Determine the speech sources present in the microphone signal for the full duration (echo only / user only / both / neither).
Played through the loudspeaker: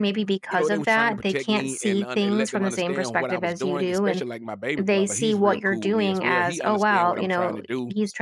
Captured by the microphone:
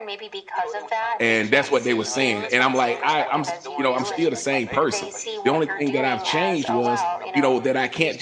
both